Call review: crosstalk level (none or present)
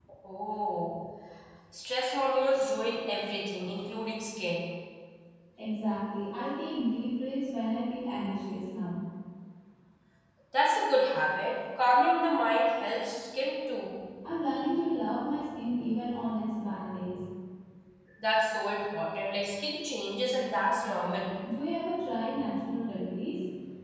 none